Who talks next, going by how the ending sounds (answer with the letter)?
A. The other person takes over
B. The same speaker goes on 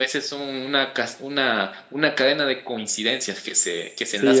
A